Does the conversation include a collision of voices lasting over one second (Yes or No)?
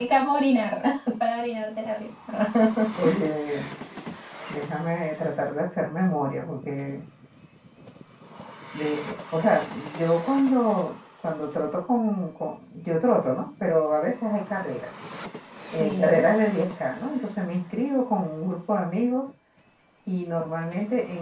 No